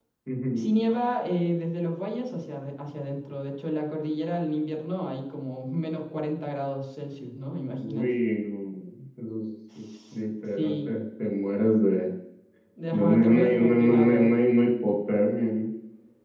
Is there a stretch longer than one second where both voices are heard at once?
Yes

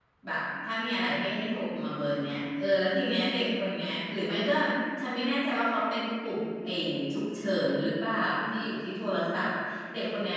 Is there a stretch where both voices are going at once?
No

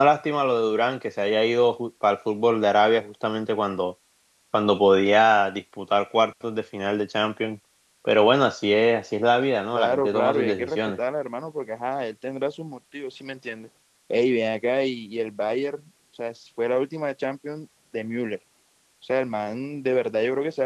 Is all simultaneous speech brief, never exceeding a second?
No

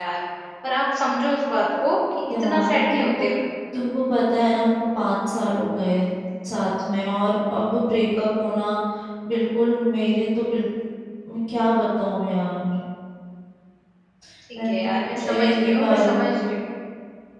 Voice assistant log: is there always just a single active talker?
No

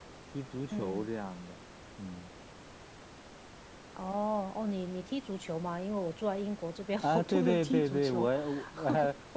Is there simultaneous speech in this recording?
Yes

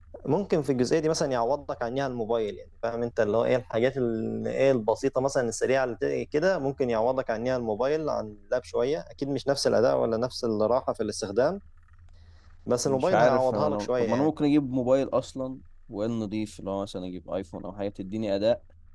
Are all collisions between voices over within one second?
No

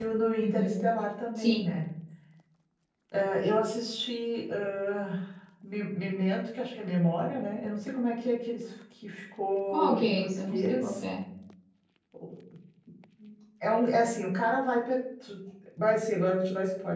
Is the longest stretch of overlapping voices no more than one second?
No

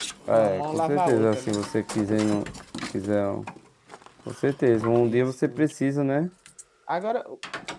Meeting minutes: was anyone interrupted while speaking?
Yes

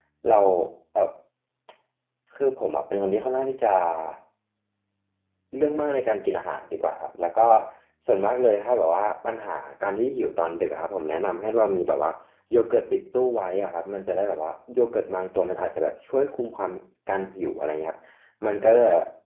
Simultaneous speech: No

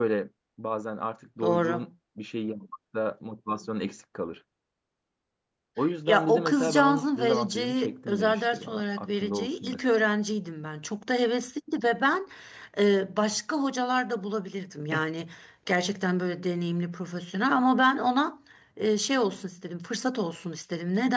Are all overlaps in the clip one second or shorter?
No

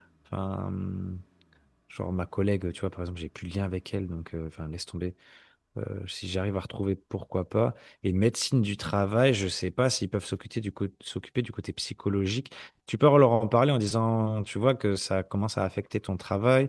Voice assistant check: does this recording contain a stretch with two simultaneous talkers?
No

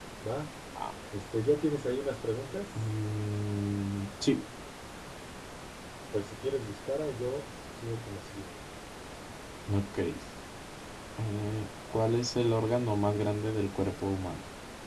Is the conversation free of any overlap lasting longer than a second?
Yes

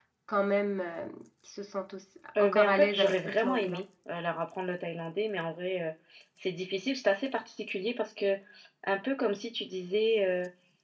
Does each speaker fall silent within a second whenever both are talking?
No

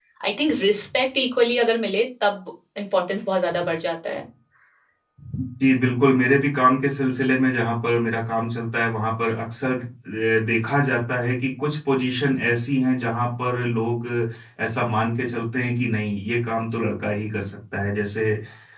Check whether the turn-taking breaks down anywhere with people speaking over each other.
No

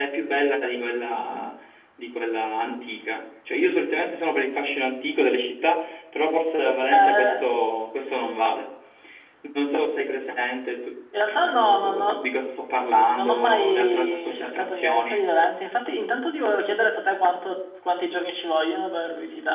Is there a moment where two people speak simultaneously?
Yes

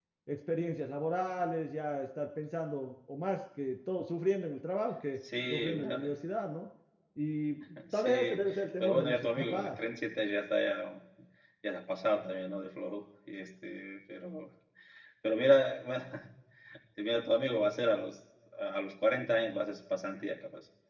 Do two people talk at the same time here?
Yes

